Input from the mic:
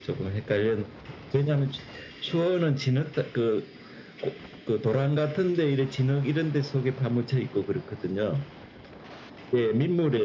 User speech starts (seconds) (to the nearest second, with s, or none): none